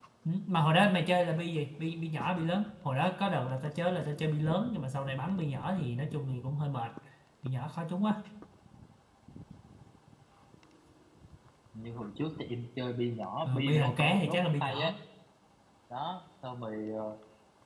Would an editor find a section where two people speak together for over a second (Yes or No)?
Yes